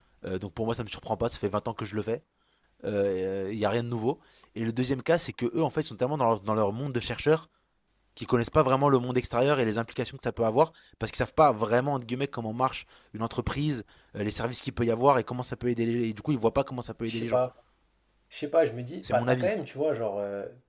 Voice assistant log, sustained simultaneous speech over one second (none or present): none